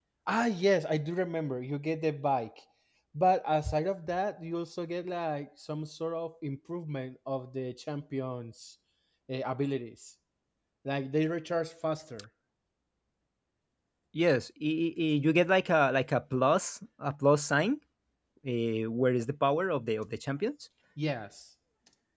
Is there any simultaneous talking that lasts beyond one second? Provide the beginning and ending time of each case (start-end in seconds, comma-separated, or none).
none